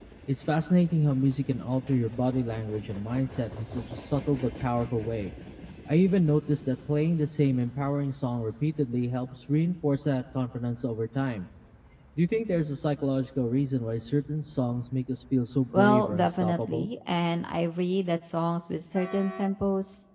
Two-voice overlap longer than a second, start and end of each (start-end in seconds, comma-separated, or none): 15.7-16.9